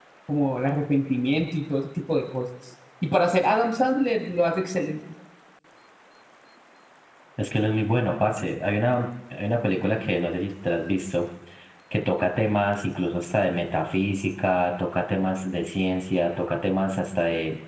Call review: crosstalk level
none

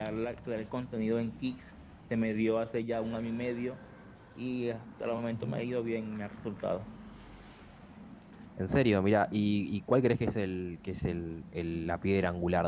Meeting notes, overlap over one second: none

